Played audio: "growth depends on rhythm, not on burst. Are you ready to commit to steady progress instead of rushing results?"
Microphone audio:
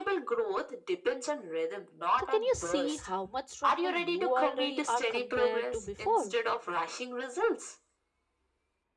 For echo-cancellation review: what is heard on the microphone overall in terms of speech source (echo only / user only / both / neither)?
both